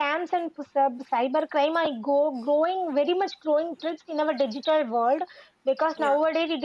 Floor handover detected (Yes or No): No